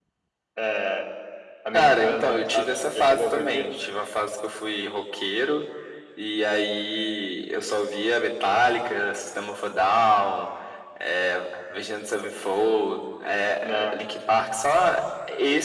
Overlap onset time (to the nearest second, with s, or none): 2 s